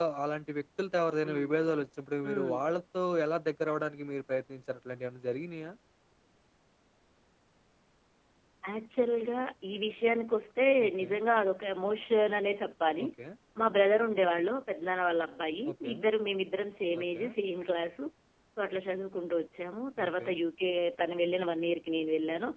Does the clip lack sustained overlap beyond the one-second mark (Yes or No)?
Yes